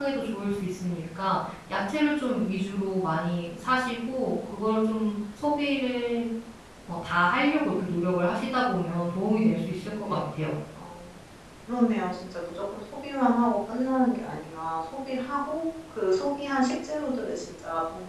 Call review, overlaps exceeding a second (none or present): none